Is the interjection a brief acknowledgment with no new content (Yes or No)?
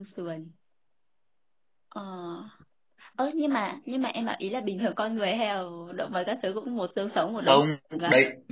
No